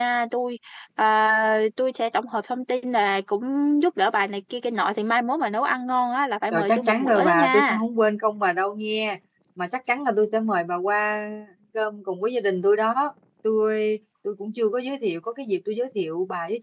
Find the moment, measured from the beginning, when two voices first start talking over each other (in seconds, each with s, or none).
6.5 s